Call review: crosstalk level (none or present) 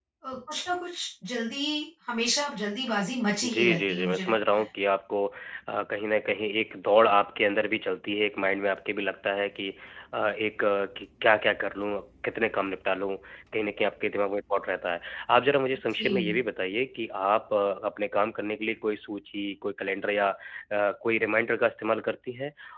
present